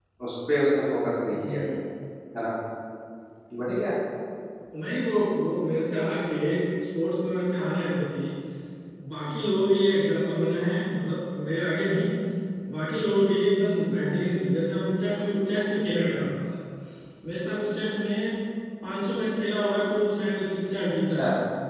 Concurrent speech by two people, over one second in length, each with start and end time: none

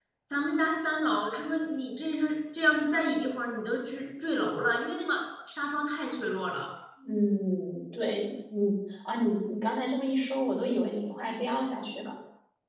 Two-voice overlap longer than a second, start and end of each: none

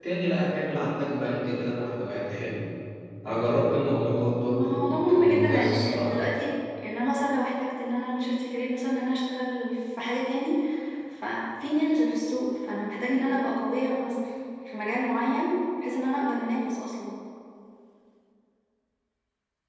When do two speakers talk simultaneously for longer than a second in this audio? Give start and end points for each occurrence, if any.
4.5-6.2

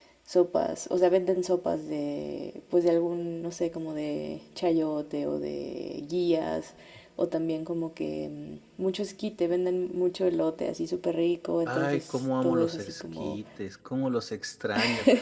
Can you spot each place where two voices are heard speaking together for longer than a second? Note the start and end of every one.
11.7-13.4

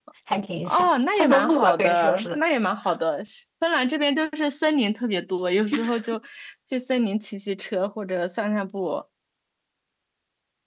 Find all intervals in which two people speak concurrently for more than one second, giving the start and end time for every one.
0.7-2.4

